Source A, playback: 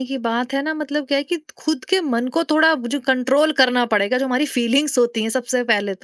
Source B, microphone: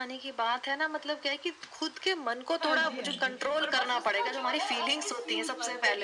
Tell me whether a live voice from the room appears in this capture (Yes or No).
Yes